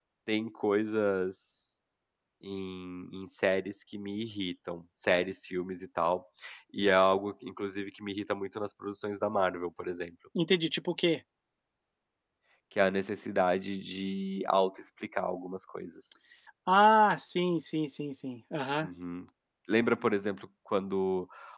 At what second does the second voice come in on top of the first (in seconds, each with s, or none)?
none